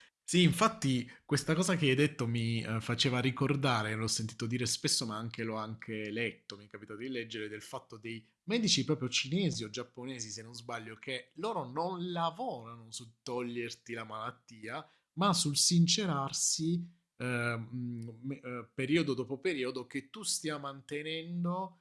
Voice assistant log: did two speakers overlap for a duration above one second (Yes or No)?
No